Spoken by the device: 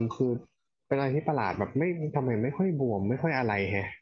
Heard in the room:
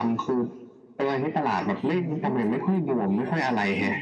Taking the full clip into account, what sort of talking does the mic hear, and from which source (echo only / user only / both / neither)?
both